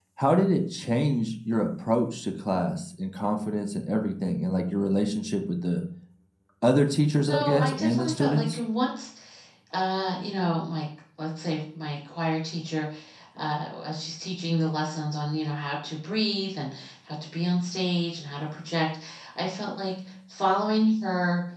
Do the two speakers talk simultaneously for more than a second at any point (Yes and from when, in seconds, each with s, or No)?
Yes, from 7.3 s